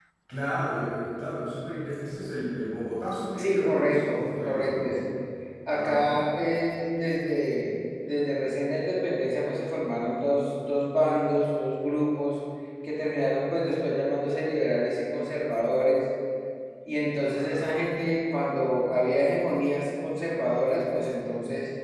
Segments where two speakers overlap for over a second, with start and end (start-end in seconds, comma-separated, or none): 3.4-4.9